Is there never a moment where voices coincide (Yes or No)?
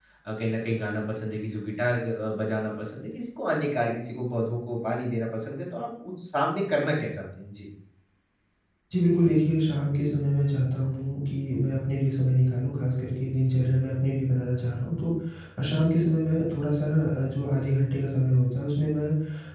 Yes